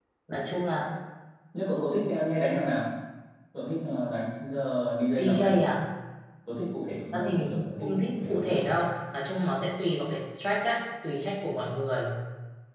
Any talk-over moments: Yes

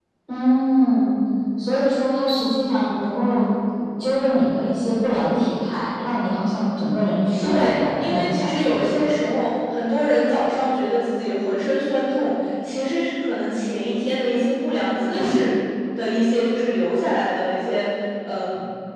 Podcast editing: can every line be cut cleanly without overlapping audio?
No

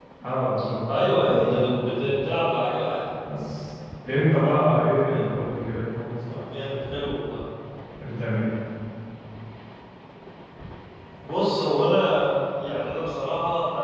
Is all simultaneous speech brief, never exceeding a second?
No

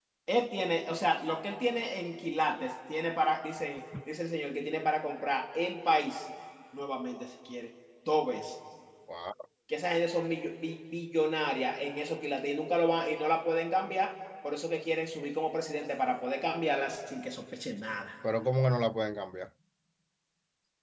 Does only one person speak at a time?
Yes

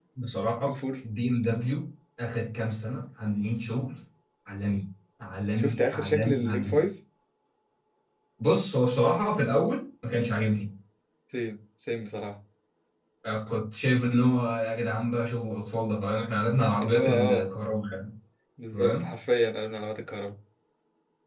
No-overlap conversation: No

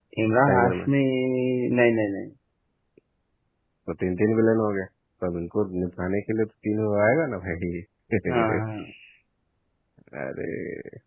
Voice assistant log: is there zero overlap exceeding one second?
Yes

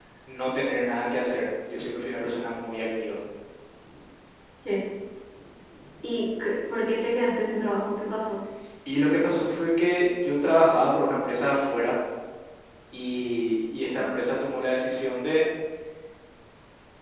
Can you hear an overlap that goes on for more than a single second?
No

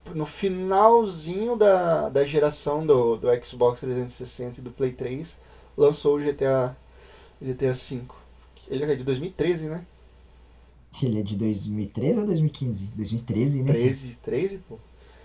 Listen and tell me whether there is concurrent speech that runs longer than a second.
No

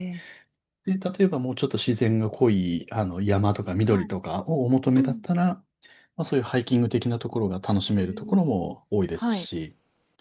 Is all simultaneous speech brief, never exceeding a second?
Yes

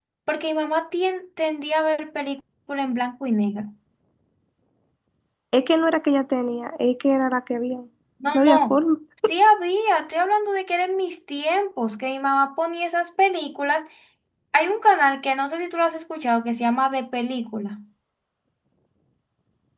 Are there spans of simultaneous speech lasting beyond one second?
No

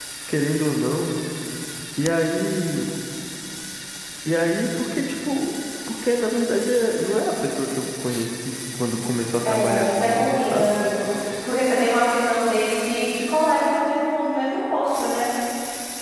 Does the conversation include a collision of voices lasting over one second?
Yes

